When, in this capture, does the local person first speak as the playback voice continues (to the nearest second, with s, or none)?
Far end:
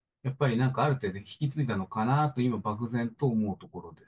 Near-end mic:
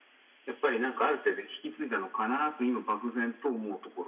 none